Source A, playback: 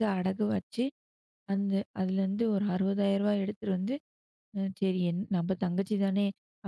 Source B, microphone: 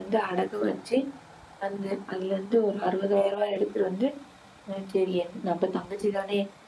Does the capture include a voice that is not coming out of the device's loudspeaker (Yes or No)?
No